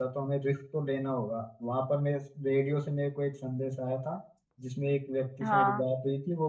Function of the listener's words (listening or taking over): listening